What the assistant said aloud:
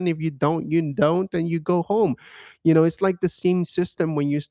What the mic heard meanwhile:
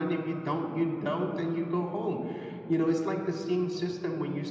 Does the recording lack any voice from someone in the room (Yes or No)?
Yes